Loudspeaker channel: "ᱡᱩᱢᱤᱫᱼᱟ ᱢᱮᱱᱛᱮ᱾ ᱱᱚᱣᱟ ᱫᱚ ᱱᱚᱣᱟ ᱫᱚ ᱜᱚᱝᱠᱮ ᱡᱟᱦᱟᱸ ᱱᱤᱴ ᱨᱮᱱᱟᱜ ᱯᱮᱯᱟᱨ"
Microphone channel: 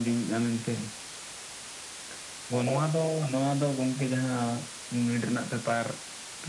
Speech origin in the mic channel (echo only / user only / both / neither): echo only